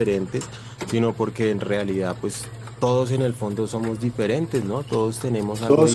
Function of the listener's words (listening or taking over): taking over